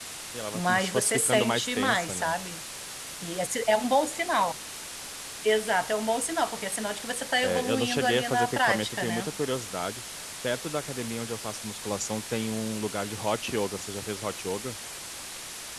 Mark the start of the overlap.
0.5 s

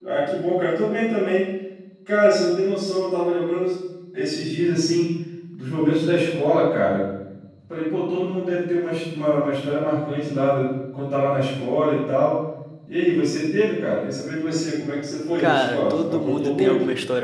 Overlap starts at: 15.4 s

